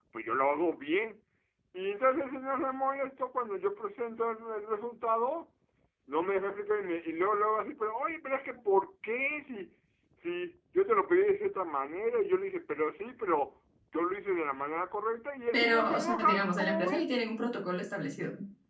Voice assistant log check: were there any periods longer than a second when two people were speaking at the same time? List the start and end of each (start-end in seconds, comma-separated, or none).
15.5-17.0